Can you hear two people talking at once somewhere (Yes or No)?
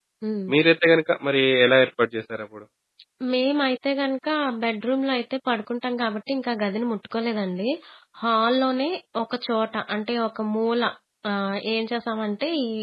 No